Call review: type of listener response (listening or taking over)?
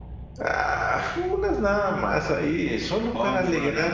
taking over